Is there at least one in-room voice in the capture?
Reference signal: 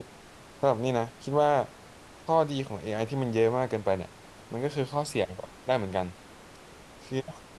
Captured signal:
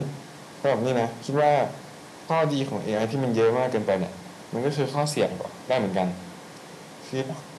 No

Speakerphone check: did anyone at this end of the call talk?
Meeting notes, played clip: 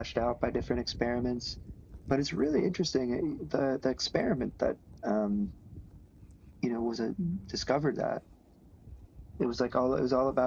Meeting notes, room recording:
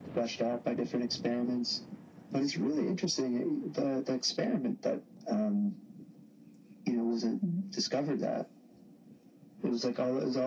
No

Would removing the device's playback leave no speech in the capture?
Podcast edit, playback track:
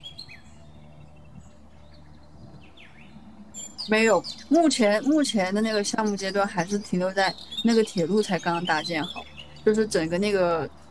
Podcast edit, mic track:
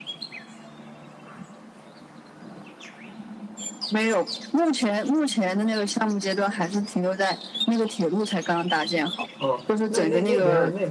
No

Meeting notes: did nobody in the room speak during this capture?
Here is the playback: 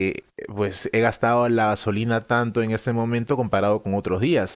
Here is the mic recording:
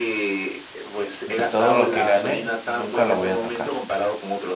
No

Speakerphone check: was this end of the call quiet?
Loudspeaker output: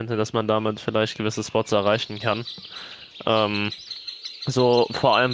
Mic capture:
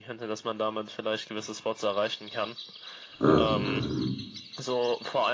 No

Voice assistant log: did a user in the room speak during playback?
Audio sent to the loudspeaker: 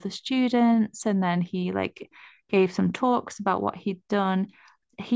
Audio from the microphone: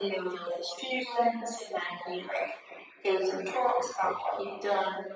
No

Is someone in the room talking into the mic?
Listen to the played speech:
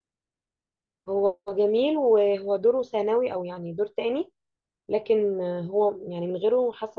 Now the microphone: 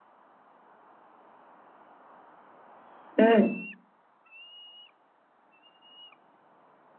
Yes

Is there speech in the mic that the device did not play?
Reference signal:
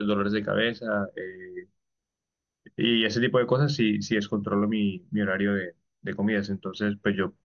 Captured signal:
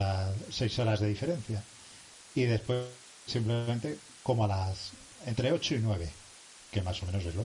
Yes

